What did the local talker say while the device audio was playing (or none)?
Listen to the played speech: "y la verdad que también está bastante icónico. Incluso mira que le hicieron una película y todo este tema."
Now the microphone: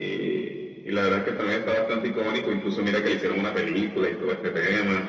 none